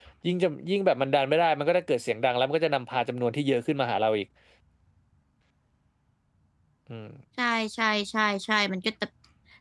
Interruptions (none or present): none